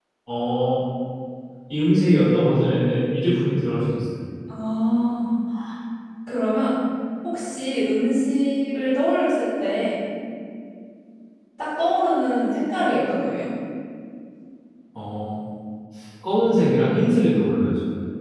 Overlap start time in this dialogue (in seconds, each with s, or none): none